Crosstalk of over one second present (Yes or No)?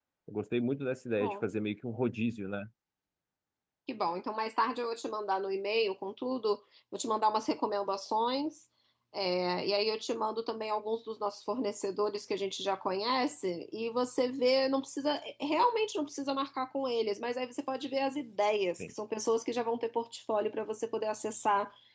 No